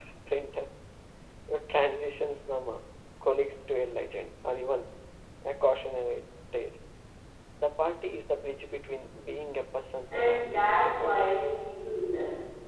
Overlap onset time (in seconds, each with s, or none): 10.0 s